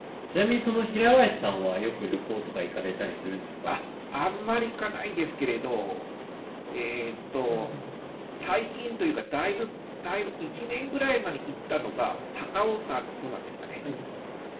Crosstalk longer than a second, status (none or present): none